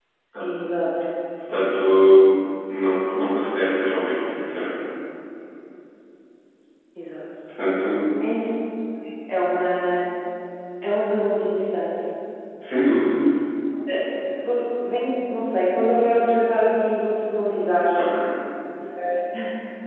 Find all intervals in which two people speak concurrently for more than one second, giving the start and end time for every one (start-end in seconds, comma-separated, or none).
none